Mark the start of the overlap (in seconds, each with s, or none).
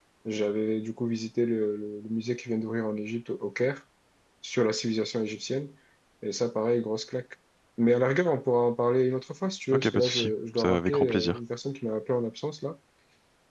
9.7 s